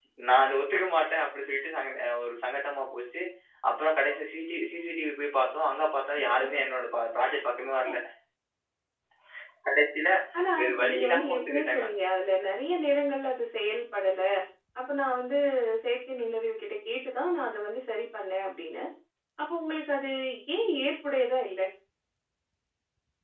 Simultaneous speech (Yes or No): Yes